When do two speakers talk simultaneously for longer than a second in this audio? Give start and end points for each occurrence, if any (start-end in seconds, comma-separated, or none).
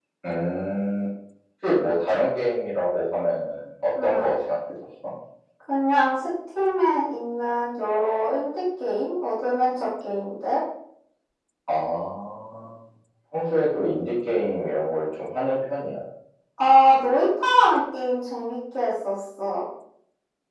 none